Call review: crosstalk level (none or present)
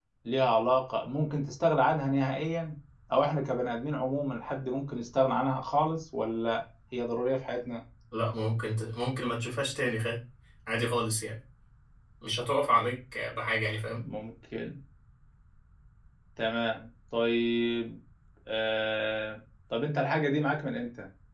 none